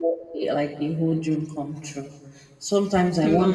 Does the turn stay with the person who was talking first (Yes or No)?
Yes